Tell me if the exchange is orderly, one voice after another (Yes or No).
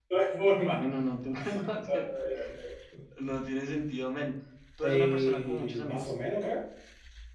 No